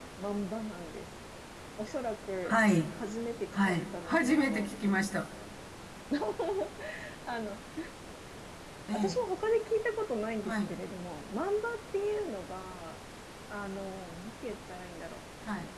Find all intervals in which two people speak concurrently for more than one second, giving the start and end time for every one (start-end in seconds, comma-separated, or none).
3.5-4.7